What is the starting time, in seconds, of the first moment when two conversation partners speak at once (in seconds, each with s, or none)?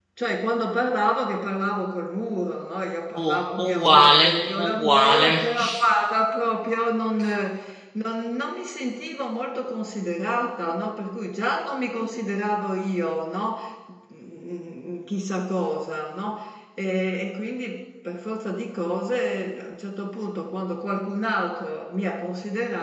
3.1 s